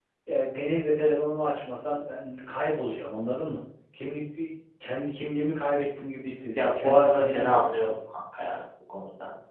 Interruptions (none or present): present